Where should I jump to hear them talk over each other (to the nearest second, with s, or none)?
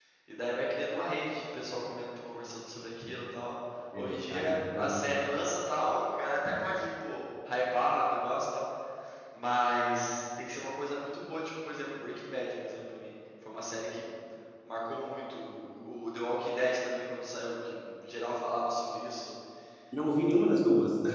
4 s